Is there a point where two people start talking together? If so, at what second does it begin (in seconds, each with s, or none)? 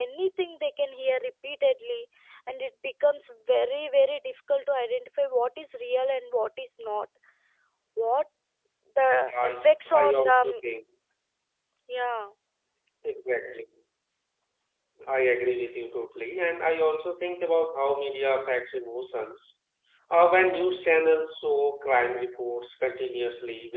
9.1 s